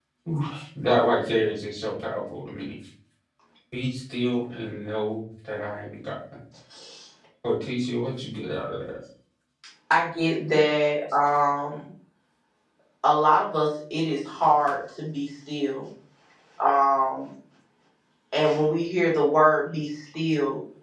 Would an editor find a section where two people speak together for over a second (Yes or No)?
No